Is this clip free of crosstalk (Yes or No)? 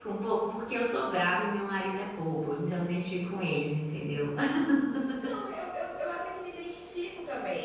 Yes